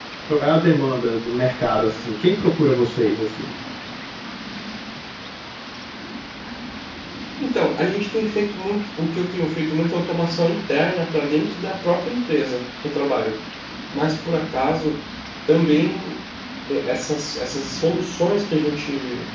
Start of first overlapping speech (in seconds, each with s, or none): none